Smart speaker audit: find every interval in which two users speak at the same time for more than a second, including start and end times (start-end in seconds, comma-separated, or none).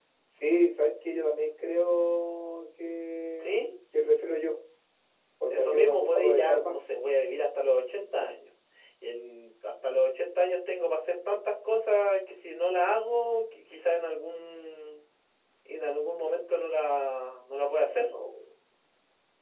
5.5-7.0